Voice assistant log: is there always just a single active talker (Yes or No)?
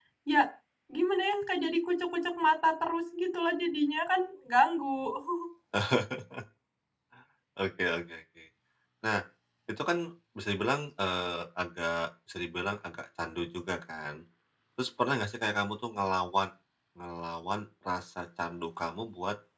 Yes